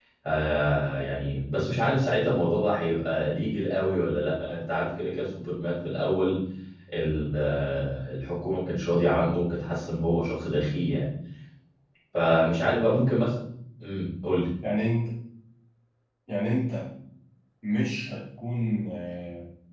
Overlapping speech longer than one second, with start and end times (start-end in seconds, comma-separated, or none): none